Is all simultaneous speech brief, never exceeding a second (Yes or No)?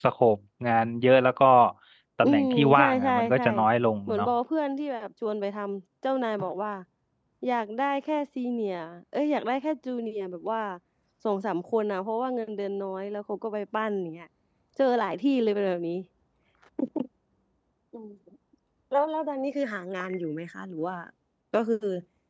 No